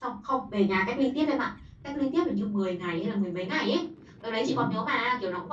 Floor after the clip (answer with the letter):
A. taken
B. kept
B